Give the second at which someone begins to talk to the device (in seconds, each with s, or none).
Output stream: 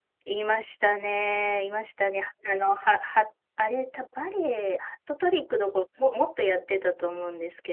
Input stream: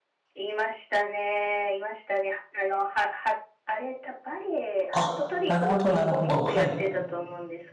4.9 s